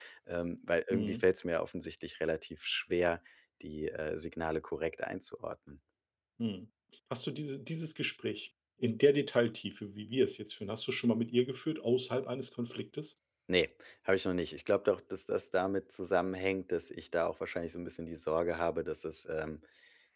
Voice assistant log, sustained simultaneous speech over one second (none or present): none